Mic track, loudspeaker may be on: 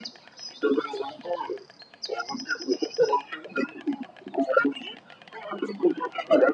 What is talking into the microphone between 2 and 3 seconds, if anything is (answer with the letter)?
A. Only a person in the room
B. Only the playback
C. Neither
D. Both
B